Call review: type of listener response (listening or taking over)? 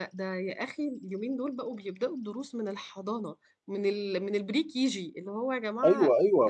taking over